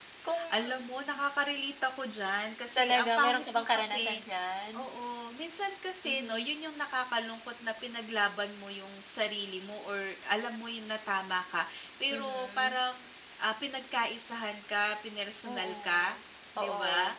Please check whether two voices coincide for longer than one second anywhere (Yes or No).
Yes